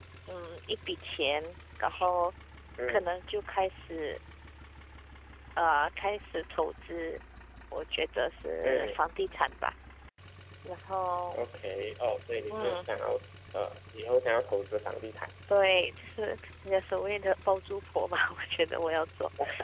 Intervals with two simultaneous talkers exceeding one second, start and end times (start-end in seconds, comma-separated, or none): none